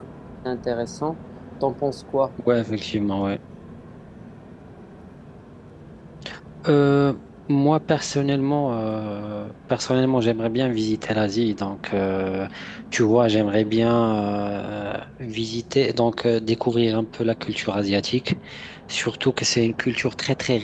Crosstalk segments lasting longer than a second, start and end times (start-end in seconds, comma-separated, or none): none